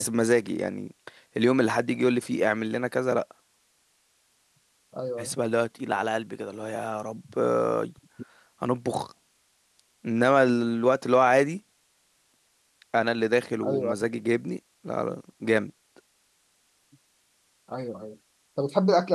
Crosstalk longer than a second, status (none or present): none